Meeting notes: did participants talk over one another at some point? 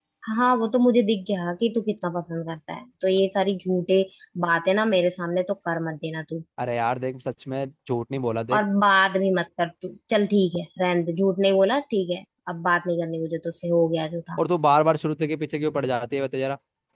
No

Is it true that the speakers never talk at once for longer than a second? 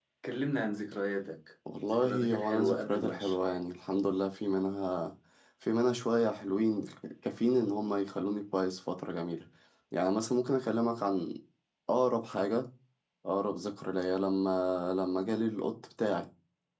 No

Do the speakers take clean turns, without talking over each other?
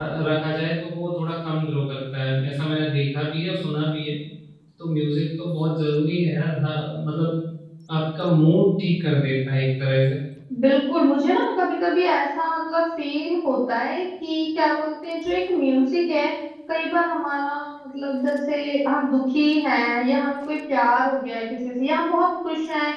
Yes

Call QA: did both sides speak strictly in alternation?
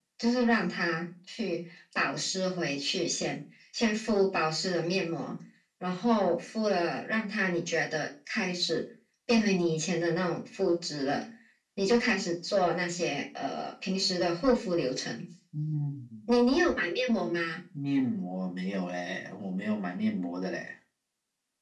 Yes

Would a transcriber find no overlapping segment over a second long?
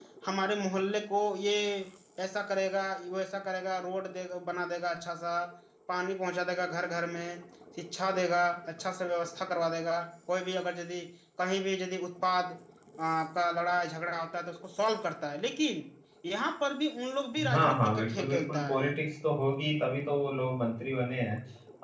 No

